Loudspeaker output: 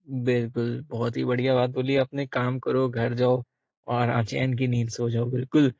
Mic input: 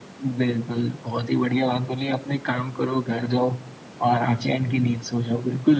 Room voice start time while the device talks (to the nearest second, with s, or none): none